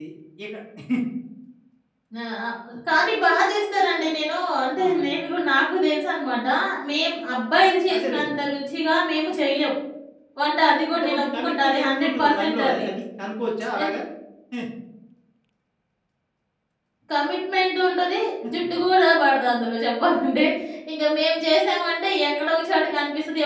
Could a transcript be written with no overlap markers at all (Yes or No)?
No